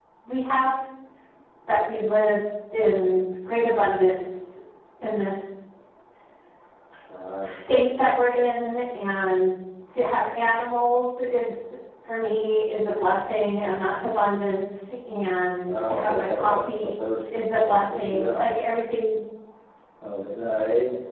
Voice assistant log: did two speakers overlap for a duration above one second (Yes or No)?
Yes